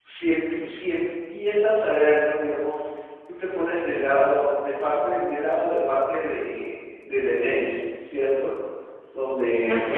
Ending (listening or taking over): listening